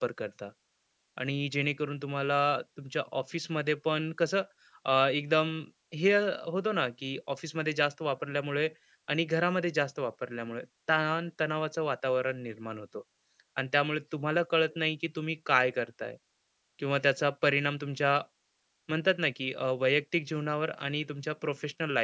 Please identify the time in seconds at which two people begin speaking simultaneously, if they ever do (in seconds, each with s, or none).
none